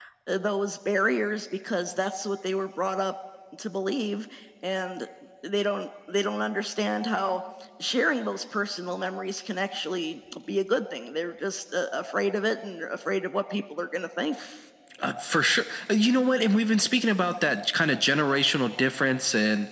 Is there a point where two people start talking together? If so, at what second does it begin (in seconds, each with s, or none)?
none